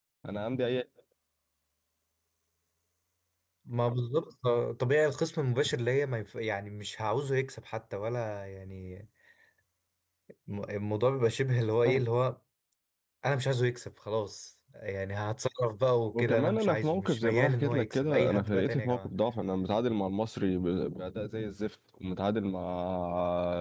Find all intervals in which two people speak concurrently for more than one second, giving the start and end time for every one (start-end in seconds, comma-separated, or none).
16.1-19.1